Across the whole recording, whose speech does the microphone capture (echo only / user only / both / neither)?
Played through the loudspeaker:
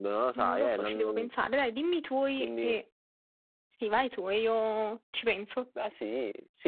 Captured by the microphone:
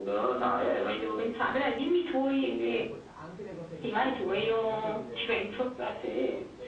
both